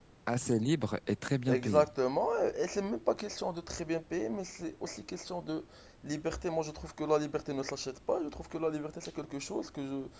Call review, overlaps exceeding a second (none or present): none